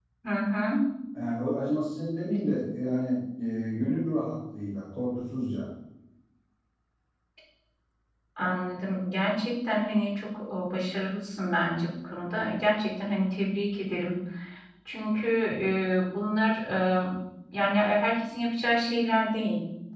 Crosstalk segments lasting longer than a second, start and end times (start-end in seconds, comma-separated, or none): none